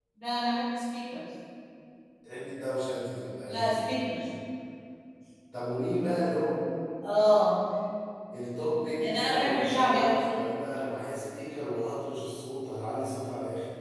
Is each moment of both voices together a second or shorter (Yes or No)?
No